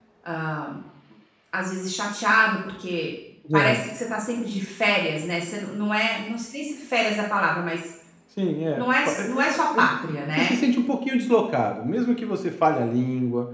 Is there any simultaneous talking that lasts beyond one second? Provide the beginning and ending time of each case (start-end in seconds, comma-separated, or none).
8.8-10.6